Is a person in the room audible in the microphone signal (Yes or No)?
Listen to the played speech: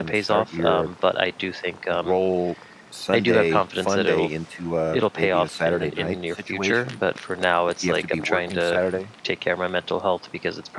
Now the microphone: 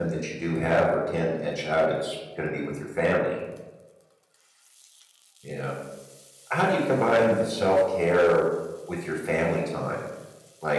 Yes